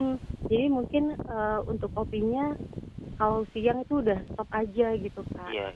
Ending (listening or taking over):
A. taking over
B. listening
B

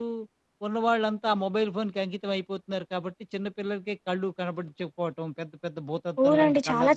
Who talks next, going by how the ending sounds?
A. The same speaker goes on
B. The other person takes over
B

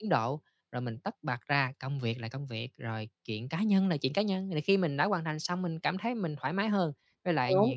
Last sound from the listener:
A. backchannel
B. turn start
A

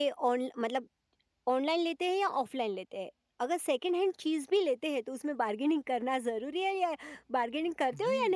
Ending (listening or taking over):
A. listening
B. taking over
B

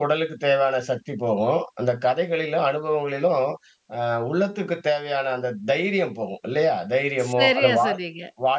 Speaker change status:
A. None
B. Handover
A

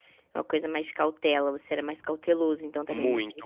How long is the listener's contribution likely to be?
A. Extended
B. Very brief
A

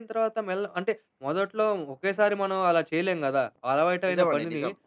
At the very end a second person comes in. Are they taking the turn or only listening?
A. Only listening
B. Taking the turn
A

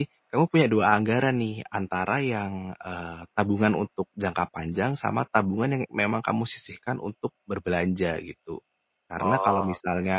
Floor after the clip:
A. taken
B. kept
B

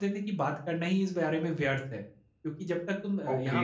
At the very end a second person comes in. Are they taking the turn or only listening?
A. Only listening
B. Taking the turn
A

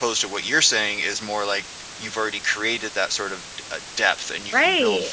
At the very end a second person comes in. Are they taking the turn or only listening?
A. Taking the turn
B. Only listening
A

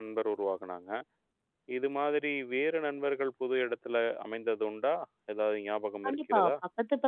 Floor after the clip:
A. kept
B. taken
B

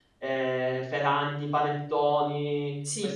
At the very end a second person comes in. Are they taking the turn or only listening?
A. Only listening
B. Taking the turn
A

